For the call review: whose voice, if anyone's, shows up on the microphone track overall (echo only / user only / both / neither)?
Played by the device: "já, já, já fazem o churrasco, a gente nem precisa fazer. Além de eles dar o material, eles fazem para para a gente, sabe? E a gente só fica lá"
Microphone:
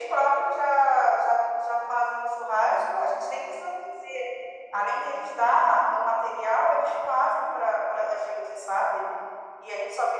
echo only